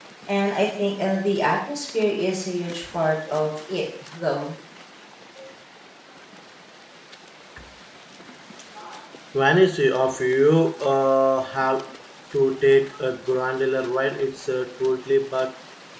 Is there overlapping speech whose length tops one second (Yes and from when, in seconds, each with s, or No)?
No